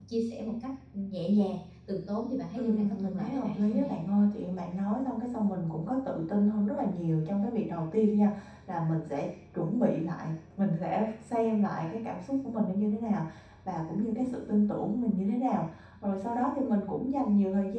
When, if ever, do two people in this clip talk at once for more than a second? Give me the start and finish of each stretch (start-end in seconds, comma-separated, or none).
2.6-3.9